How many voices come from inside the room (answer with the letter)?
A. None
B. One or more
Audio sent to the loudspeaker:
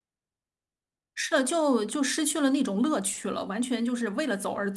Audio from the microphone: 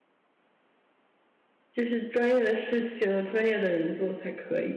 B